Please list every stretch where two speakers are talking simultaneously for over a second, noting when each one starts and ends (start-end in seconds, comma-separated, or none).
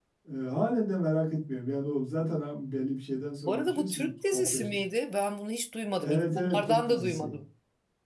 3.5-4.8, 6.0-7.4